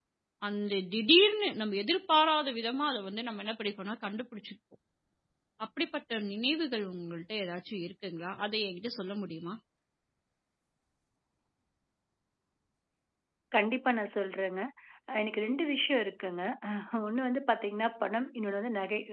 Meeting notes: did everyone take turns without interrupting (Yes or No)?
Yes